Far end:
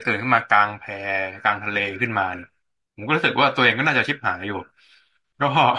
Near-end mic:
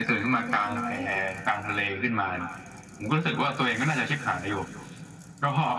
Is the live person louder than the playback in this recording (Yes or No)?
No